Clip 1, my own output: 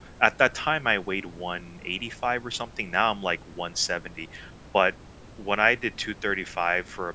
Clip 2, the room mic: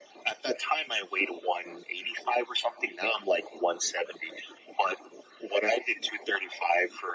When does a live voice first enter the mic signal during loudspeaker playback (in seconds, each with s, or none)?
none